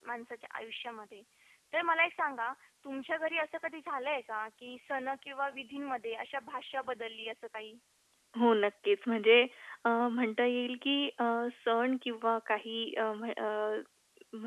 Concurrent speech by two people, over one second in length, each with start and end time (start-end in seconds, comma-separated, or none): none